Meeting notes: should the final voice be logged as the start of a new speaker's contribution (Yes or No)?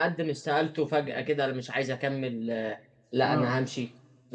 No